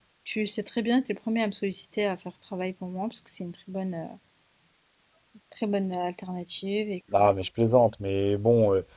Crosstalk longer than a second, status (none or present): none